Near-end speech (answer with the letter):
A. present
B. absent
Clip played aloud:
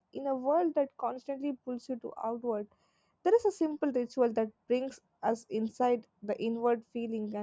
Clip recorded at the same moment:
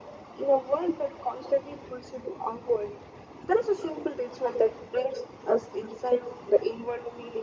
B